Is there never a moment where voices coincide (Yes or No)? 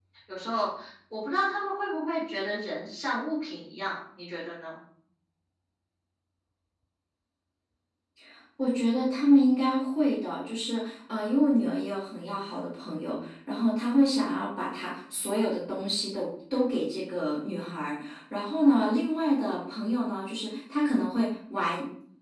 Yes